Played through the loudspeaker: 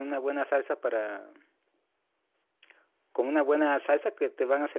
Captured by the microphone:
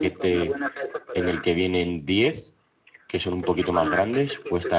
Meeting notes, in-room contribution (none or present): present